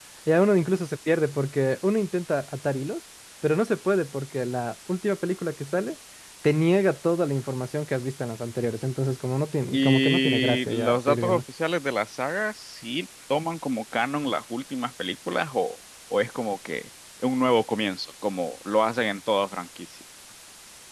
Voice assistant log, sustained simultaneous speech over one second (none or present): present